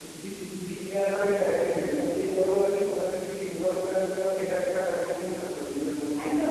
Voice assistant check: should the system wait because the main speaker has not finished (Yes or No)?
No